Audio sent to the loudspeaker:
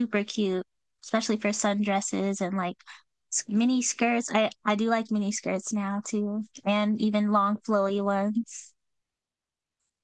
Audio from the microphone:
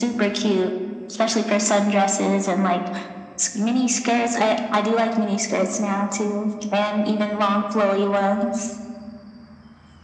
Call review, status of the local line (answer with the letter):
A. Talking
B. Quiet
B